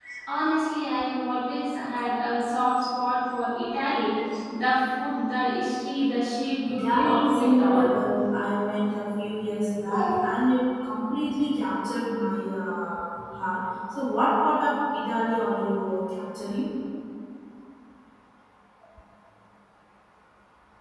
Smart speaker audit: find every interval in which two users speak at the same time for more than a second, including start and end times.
6.6-7.9

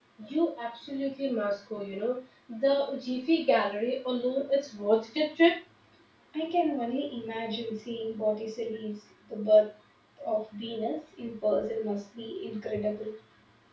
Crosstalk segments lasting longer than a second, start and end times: none

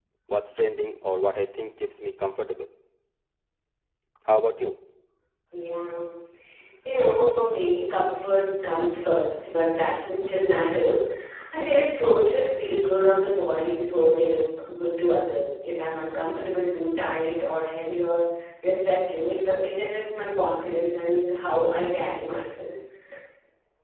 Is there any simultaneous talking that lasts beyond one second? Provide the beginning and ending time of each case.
none

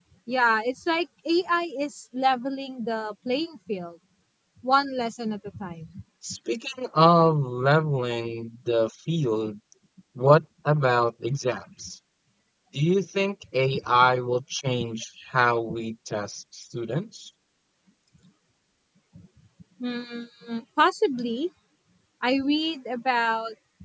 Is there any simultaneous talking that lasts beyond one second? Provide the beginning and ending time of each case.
none

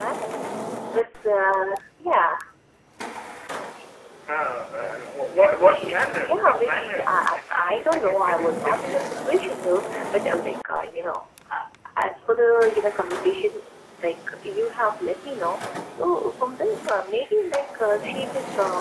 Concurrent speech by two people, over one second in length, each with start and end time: 5.6-9.0

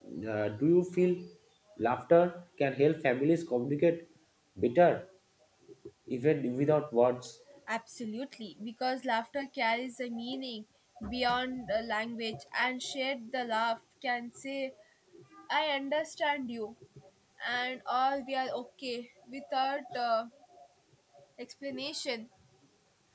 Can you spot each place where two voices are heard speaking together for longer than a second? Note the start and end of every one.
none

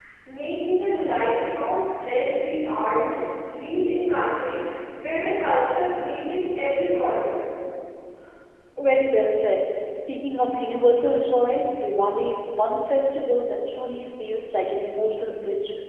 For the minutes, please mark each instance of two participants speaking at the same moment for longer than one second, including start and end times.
none

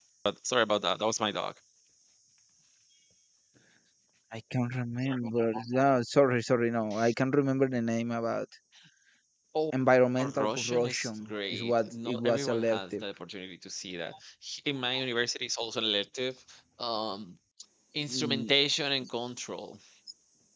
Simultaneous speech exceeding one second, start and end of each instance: 10.2-13.0

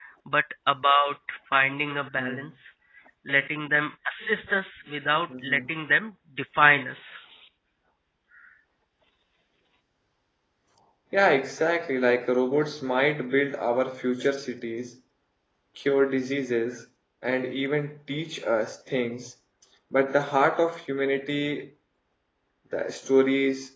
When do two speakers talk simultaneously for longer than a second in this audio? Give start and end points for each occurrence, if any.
none

